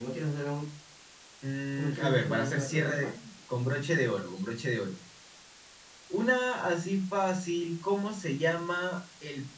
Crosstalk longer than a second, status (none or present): present